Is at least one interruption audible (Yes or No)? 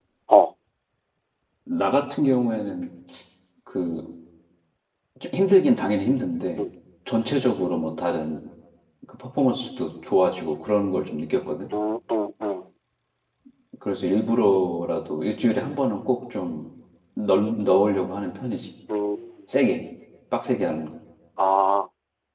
No